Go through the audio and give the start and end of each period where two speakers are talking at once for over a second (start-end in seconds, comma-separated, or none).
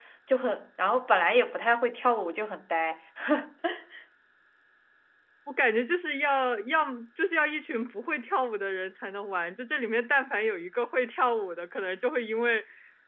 none